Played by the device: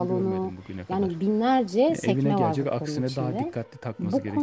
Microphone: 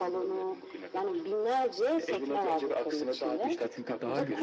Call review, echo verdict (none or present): present